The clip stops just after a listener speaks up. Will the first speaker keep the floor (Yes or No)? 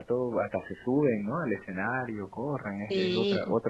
No